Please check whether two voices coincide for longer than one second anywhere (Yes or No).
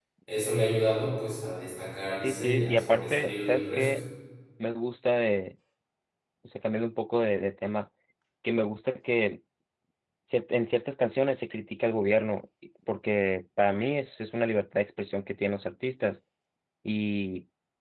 Yes